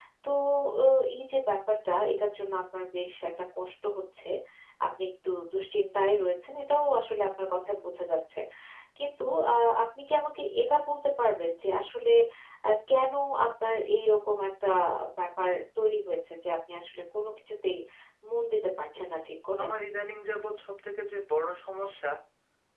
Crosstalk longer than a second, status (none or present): none